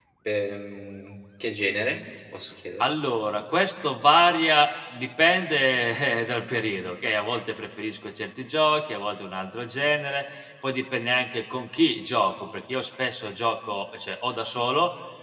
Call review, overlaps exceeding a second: none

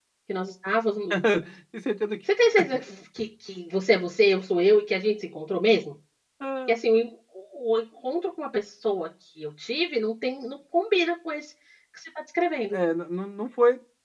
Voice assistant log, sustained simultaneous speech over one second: none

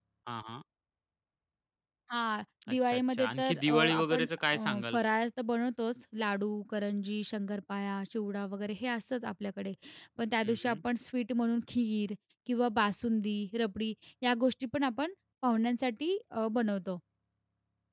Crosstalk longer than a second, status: present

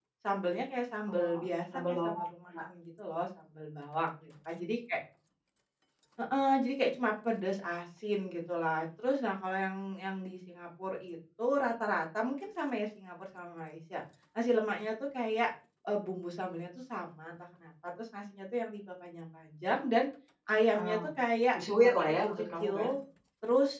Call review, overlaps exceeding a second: present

